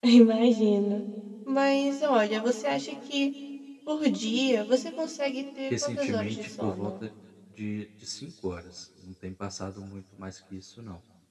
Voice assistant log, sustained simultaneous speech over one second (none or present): present